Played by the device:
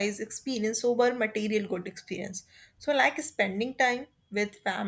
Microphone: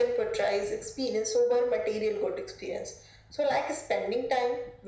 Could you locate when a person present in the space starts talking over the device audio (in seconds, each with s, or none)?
none